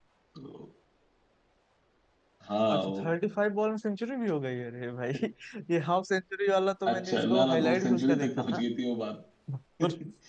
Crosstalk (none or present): present